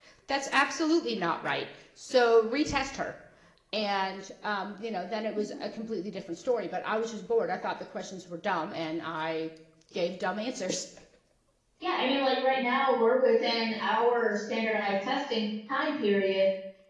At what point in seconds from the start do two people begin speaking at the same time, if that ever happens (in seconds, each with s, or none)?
none